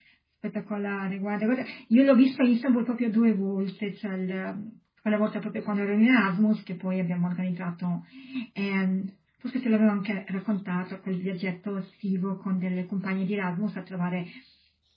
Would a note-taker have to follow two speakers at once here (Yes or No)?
No